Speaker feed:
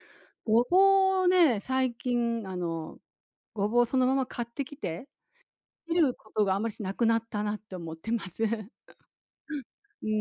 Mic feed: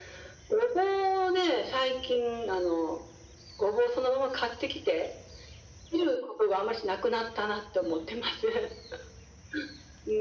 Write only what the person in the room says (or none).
none